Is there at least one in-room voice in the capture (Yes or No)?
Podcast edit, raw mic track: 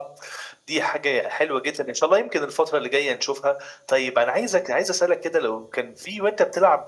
No